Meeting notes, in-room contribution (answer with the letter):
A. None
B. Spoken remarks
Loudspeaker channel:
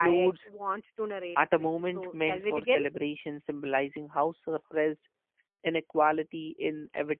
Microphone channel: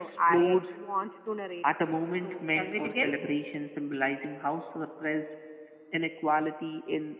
A